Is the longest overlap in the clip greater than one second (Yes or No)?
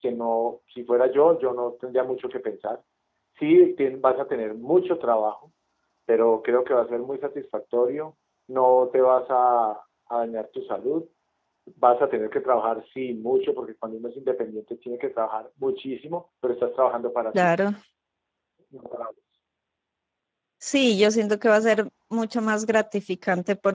No